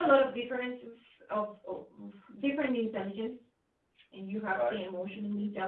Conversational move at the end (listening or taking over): listening